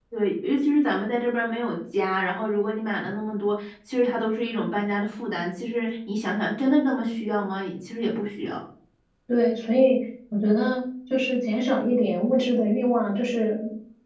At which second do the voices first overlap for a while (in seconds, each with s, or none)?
none